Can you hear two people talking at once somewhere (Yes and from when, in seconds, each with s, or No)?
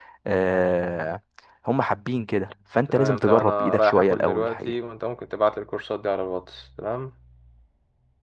Yes, from 2.9 s